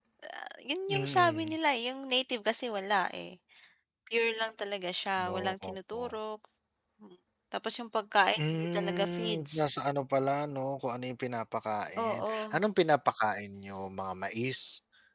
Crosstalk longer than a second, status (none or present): present